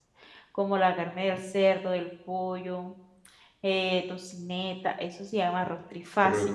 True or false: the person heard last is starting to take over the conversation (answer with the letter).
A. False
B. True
B